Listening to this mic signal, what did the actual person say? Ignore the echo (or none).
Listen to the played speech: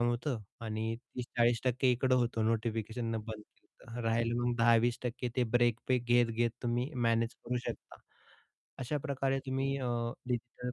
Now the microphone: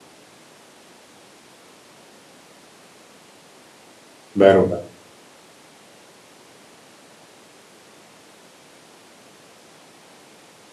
बरोबर.